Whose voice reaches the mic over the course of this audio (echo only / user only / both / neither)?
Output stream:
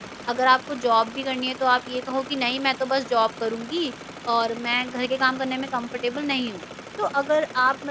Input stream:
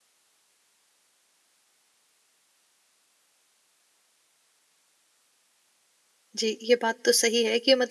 user only